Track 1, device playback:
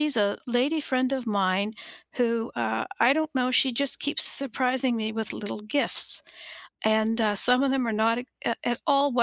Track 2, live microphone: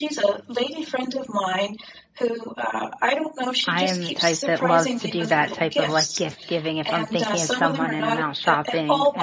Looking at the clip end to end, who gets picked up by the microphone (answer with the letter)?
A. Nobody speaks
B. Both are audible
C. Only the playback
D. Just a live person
B